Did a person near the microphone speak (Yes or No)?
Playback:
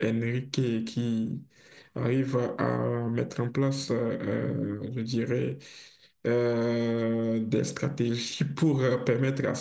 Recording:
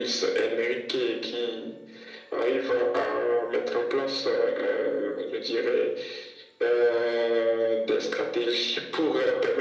No